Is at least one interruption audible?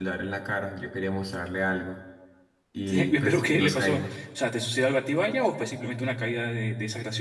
Yes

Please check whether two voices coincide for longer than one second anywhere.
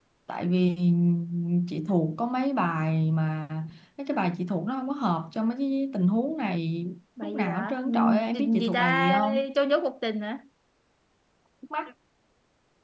Yes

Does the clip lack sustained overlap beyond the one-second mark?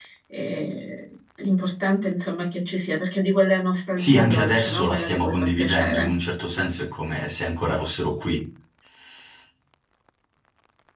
No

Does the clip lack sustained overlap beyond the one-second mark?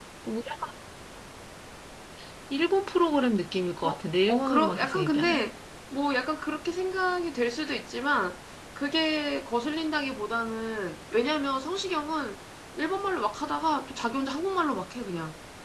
No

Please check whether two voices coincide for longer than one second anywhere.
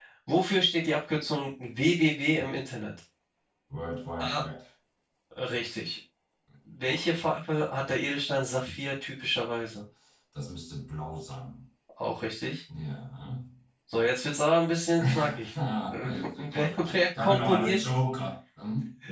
Yes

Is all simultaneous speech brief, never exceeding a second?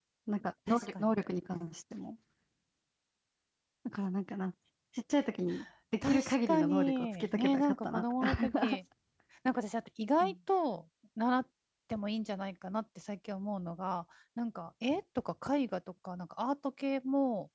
No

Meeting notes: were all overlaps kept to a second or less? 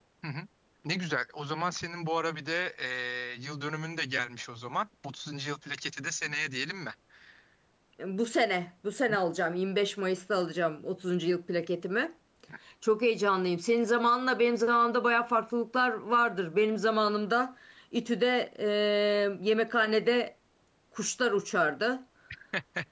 Yes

